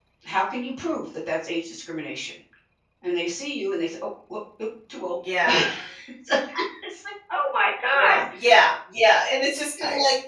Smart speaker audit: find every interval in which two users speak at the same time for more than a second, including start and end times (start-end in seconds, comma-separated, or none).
none